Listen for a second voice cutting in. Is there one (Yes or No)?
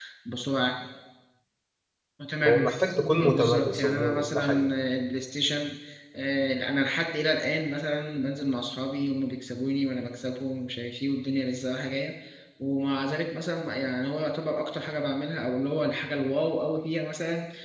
Yes